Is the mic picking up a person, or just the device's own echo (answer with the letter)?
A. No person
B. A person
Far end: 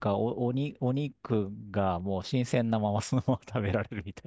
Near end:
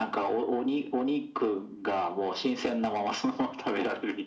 A